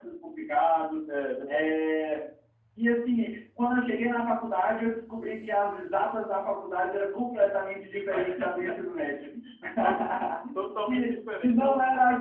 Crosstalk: present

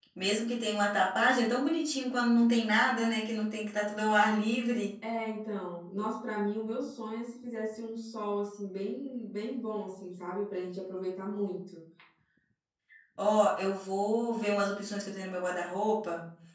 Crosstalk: none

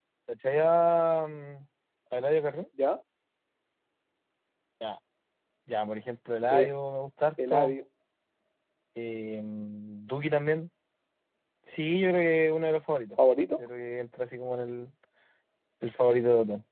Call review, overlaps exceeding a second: none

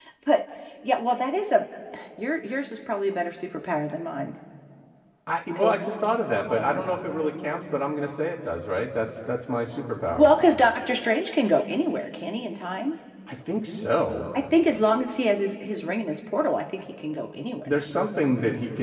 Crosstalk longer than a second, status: none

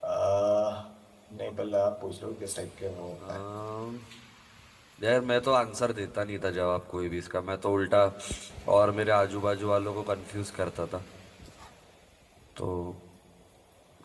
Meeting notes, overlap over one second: none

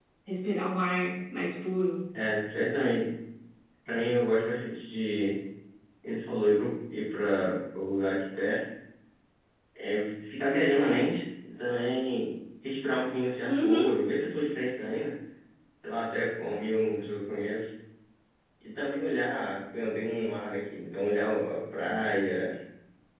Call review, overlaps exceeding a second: none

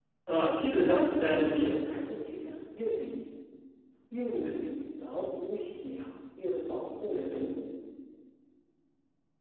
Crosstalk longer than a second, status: none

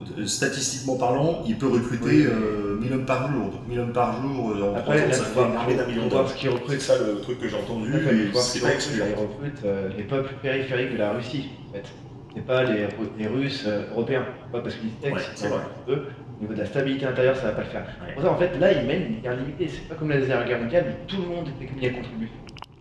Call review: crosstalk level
present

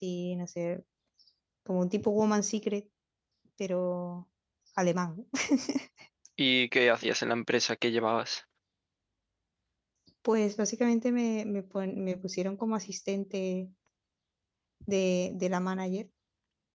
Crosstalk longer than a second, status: none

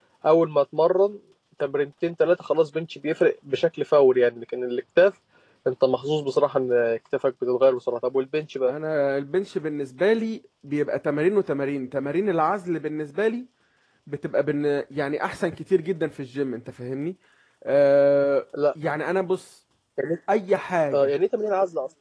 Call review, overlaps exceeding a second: none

